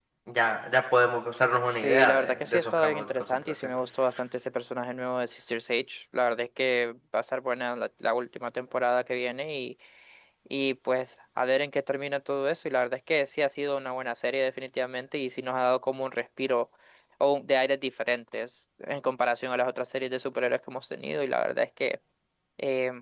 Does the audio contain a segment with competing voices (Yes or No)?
Yes